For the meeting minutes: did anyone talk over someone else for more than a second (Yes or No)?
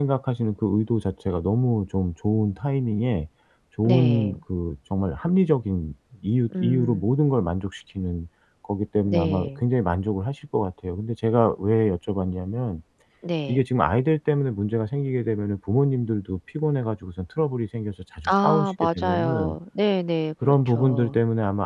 Yes